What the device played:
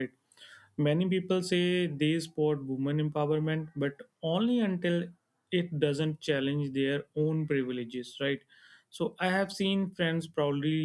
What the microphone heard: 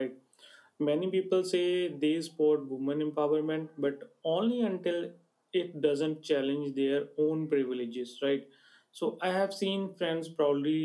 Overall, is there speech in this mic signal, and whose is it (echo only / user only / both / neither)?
echo only